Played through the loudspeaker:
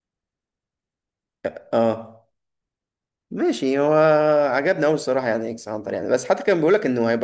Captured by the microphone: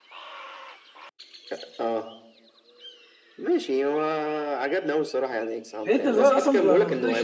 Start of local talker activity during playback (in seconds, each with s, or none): 5.8 s